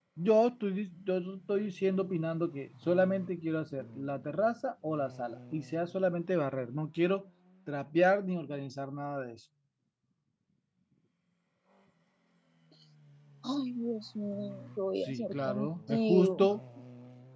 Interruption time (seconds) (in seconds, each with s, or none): 15.1 s